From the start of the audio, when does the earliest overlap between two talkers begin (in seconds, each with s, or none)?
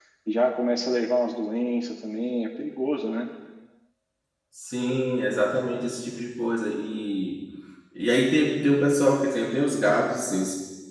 none